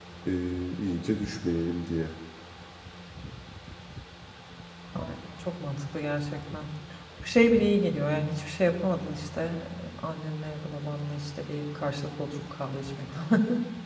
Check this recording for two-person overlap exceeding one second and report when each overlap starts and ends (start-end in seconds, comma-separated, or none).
none